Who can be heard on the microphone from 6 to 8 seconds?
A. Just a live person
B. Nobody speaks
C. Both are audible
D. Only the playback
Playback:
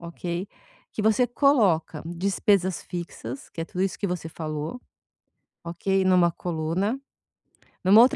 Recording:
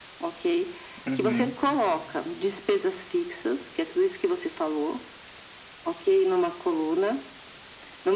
D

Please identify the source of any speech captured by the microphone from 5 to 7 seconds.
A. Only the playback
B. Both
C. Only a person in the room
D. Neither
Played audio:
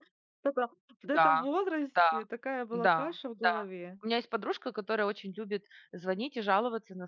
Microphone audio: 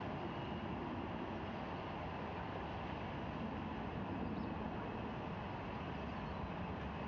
D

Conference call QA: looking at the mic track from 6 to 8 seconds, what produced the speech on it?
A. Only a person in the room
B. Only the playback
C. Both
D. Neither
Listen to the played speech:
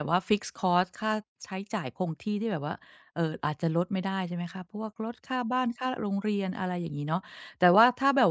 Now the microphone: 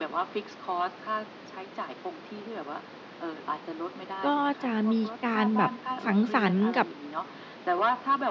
C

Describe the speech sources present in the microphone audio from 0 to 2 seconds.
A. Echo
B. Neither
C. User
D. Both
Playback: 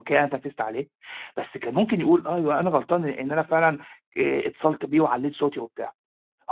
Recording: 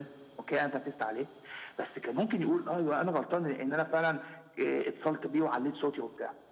A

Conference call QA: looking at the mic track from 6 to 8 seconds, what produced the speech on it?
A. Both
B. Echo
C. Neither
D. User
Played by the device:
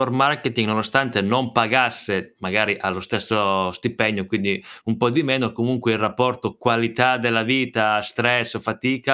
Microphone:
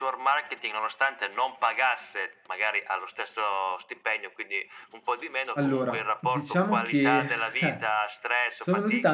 A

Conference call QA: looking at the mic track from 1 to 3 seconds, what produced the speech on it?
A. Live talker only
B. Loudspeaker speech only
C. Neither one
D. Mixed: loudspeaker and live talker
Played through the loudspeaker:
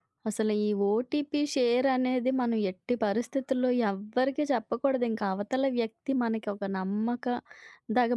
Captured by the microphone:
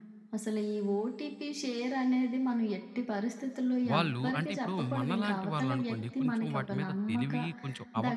B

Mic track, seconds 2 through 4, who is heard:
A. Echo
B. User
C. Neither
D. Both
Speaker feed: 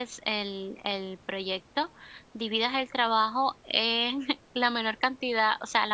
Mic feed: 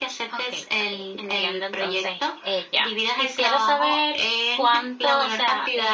D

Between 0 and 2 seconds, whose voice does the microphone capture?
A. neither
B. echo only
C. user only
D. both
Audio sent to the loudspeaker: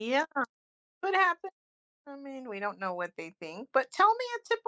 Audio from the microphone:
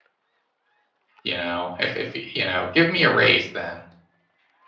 C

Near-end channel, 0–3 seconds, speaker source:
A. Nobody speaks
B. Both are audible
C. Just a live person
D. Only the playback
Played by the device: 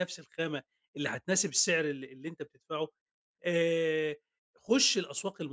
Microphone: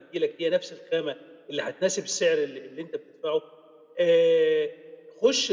D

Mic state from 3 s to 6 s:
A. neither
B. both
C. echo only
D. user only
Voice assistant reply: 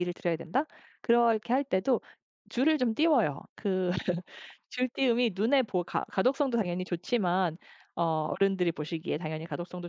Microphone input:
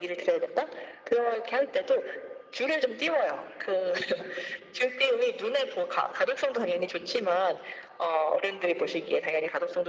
C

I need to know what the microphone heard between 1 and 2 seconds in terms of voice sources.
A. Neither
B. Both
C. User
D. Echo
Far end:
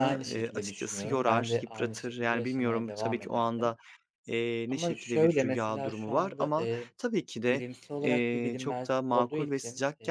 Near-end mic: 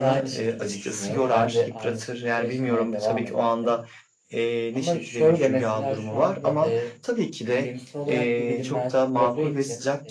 D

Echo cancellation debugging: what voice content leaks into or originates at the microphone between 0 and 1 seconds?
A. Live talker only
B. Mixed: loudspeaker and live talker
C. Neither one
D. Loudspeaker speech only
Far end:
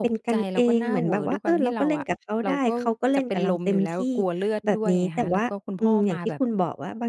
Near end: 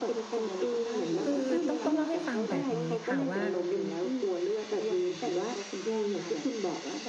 D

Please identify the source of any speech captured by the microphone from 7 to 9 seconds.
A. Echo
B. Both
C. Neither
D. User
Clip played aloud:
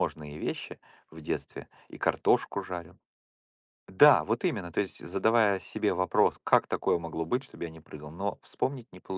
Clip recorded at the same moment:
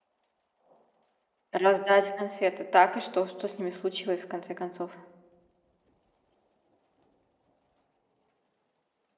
C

